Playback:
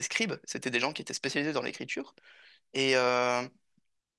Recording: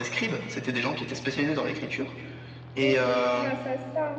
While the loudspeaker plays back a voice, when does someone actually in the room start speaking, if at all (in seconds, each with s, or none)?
2.8 s